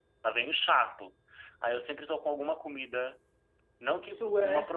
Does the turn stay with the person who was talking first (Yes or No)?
Yes